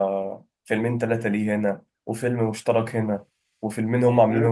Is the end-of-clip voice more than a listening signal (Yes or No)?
Yes